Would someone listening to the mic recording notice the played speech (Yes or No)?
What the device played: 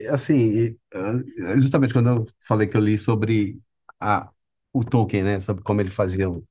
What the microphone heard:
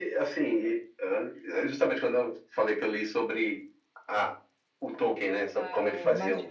Yes